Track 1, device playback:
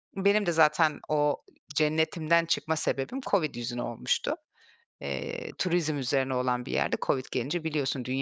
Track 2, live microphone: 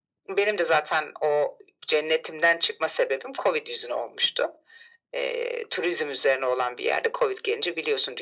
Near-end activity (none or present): none